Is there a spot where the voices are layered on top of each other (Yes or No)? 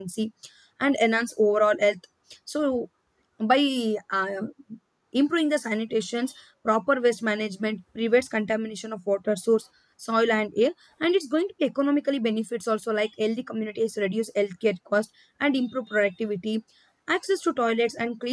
No